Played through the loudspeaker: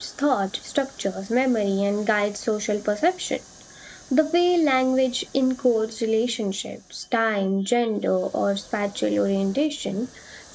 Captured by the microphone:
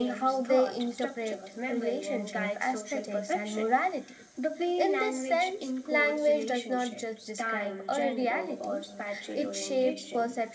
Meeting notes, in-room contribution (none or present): present